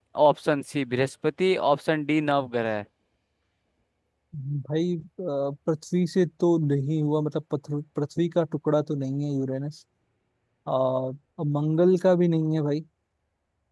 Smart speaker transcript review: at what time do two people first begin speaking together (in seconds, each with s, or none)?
none